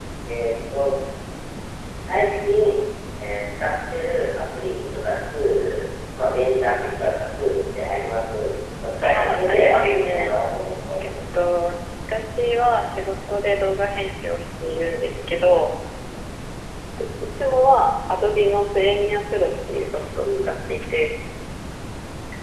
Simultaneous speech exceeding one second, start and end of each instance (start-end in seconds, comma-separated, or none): 9.0-10.3